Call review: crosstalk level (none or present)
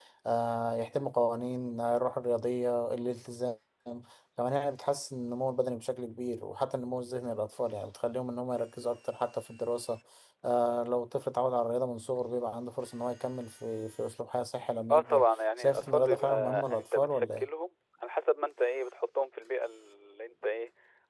present